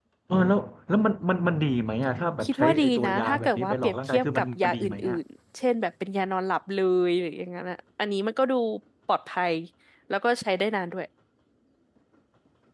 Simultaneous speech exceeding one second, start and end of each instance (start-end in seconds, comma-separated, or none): 2.4-5.2